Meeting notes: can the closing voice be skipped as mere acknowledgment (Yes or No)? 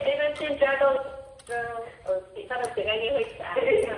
No